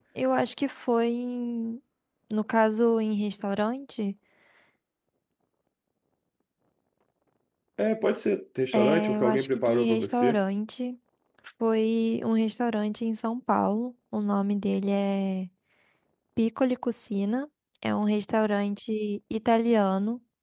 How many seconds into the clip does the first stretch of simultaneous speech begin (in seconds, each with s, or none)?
8.7 s